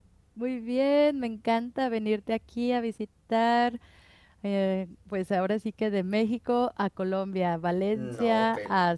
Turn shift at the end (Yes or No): No